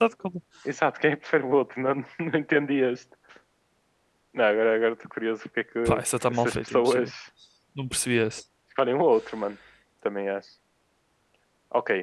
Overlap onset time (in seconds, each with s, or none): 5.8 s